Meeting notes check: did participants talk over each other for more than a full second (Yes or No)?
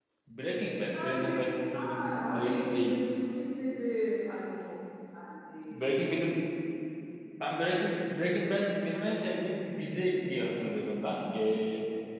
Yes